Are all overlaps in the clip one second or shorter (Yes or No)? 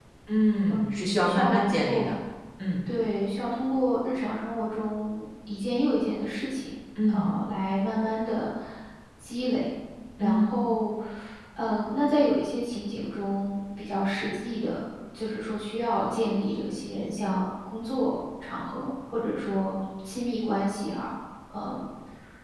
No